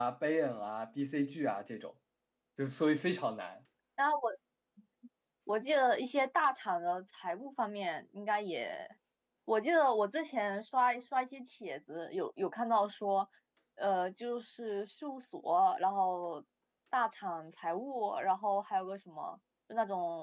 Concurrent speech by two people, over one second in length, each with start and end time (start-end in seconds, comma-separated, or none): none